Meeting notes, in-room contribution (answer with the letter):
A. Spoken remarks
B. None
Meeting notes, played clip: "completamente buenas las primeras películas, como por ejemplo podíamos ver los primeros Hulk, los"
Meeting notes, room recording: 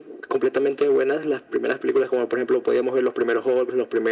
B